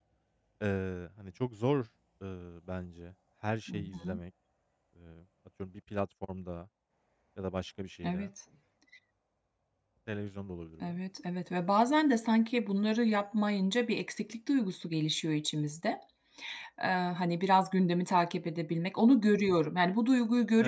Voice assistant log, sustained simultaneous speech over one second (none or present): none